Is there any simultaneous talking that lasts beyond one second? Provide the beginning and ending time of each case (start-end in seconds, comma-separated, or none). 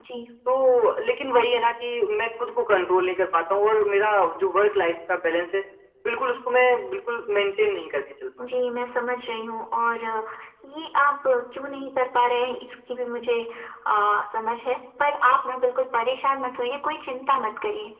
none